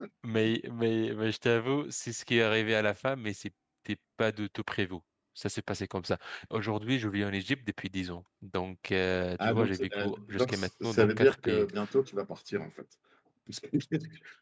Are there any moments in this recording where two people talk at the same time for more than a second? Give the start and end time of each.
9.4-11.7

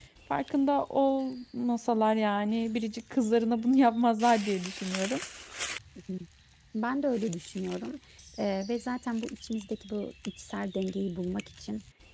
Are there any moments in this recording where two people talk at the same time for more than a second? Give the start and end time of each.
none

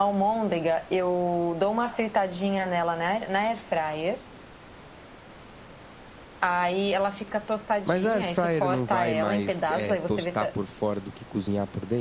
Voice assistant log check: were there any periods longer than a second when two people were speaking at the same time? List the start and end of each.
7.9-10.4

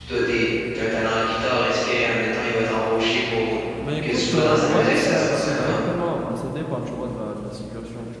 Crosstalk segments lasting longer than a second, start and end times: 4.0-5.8

